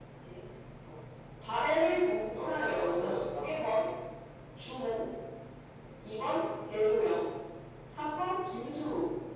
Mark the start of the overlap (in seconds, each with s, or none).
2.3 s